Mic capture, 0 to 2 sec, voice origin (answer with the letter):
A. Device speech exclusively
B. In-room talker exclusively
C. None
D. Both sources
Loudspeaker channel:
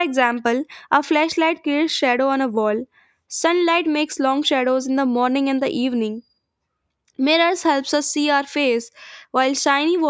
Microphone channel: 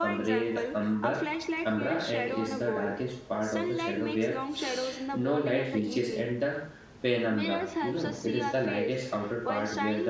D